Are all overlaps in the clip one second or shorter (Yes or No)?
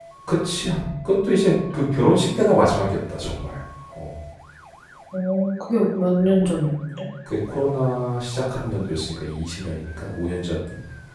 Yes